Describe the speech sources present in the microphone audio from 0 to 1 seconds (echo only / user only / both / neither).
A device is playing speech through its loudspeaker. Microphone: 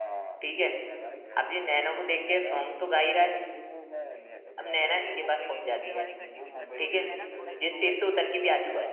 both